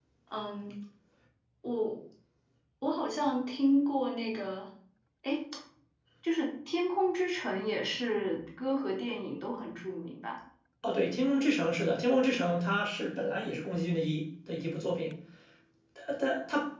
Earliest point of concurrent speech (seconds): none

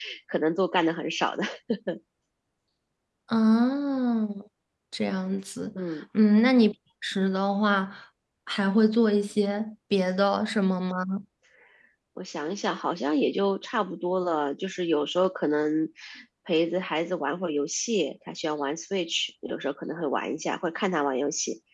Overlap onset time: none

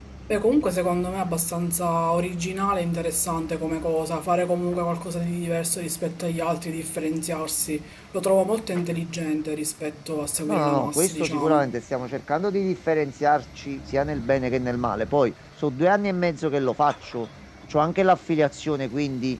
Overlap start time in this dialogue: 10.5 s

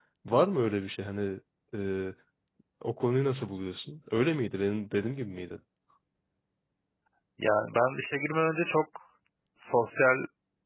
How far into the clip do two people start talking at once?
none

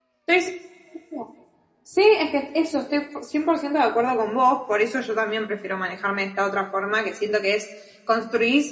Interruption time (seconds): none

